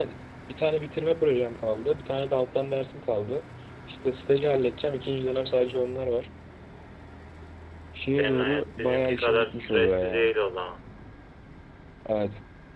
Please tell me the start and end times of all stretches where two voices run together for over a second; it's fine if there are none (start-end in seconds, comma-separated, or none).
8.2-10.3